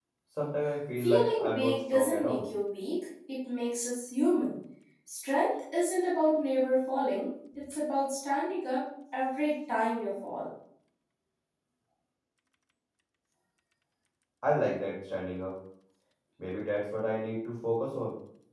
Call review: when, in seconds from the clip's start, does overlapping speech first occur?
1 s

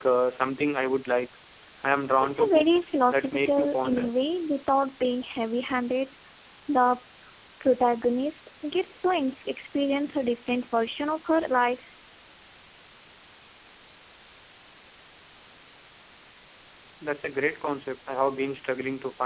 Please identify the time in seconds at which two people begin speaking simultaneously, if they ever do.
2 s

